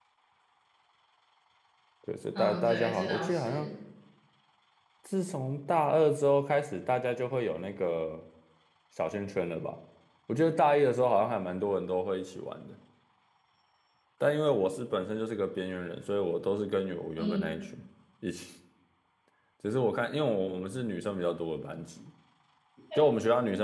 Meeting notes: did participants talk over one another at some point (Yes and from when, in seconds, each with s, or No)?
Yes, from 2.4 s